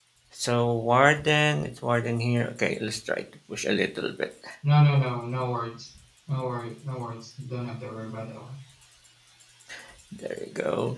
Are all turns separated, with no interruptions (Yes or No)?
Yes